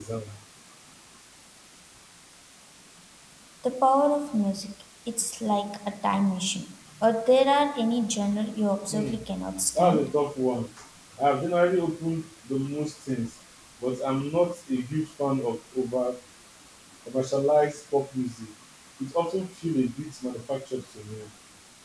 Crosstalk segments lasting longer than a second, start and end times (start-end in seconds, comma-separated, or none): none